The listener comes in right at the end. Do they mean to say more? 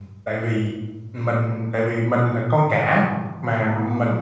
No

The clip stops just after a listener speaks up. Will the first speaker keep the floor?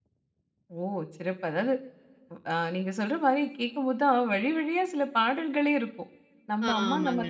Yes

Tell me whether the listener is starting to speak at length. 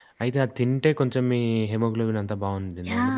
Yes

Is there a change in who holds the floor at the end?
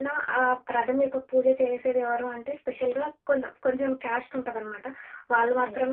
No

